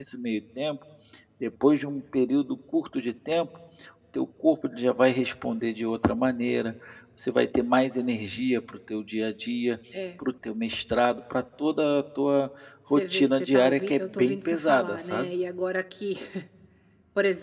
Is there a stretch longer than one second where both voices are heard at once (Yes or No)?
Yes